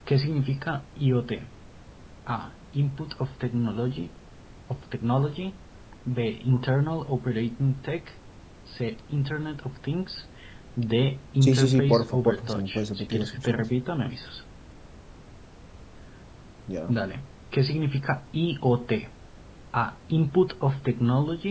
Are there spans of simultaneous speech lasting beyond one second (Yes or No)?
Yes